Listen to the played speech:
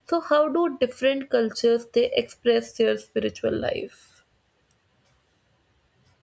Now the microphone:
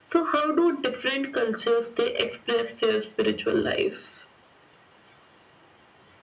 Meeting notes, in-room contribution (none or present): none